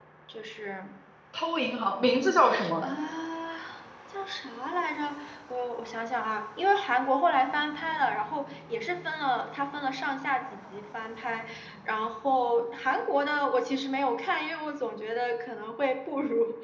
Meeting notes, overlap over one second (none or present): none